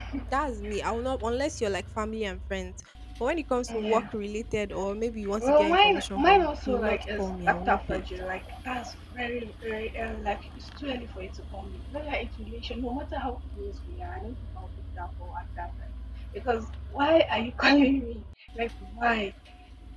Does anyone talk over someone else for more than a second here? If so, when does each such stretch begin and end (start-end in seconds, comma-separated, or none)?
5.4-8.0